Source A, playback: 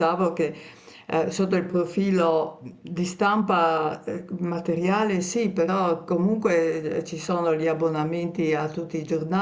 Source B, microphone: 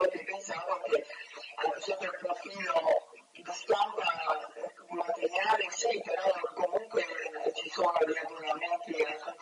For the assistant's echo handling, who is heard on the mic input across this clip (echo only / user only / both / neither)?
echo only